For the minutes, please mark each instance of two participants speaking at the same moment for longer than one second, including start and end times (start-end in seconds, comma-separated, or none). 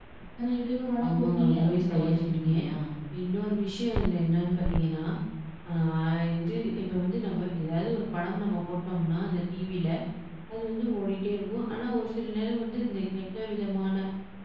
1.1-2.5